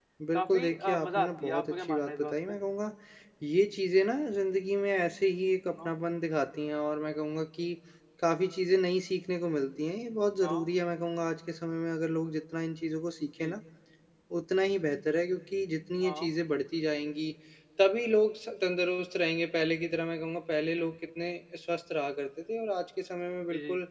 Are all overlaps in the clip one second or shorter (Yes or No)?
No